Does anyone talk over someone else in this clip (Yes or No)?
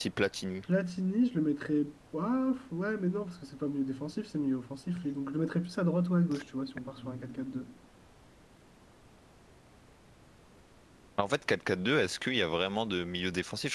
No